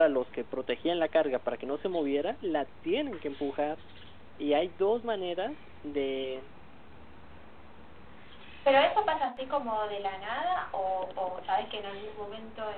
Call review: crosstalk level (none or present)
none